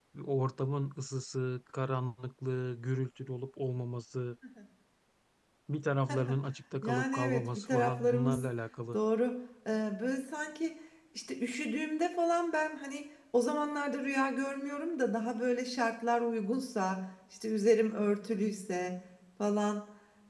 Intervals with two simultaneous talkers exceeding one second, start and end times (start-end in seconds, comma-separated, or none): 6.8-8.4